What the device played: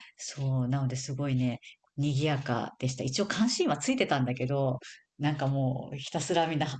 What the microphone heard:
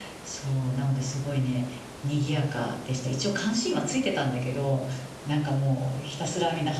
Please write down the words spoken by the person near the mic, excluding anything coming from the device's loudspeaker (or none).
none